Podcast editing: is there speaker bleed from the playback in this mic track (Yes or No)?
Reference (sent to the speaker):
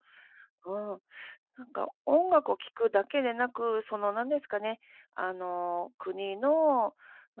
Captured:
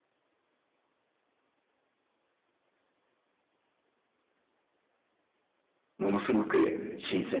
No